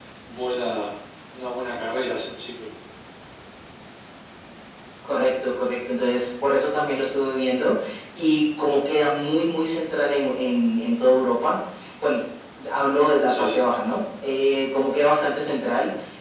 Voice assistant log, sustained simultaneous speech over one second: none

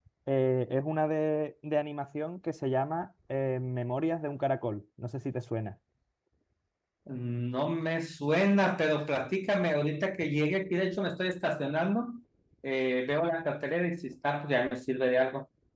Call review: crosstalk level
none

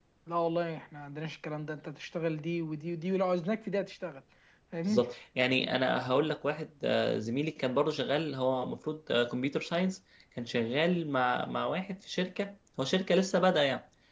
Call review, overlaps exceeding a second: none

